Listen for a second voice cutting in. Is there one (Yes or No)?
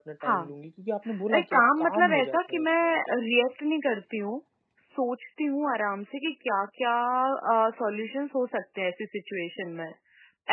Yes